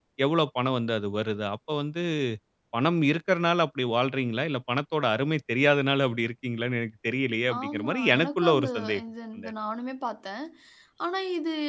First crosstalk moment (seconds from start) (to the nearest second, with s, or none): 7 s